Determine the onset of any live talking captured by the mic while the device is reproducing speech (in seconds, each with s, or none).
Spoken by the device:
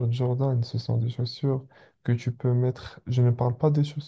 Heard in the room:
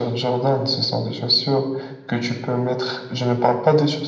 none